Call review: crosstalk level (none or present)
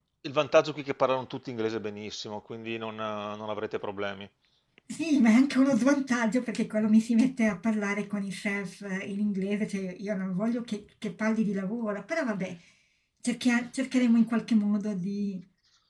none